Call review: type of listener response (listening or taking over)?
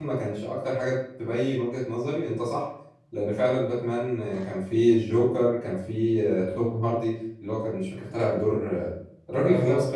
taking over